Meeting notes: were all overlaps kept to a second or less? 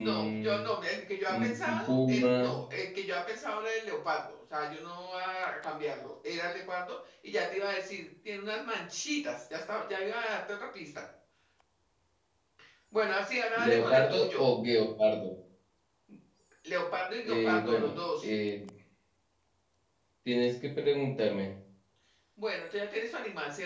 No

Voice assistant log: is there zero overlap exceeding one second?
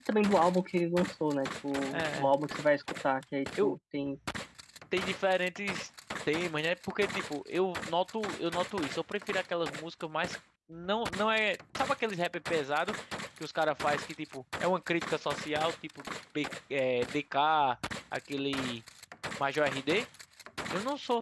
Yes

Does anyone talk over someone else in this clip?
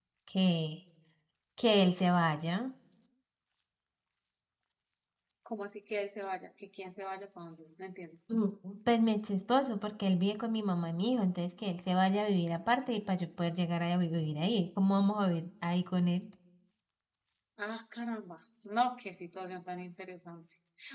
No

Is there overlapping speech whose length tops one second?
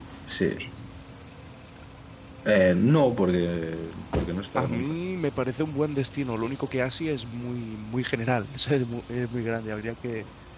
No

